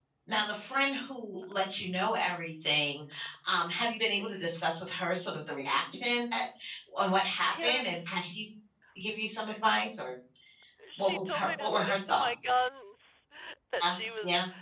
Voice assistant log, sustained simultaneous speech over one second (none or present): present